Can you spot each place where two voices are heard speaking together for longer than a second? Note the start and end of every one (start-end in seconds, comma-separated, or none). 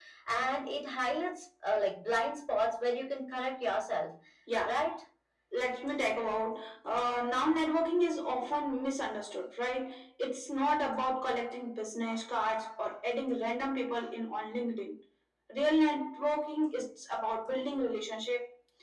none